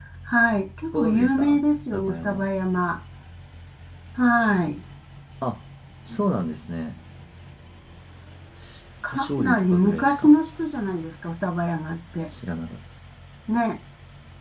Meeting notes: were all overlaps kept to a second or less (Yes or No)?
No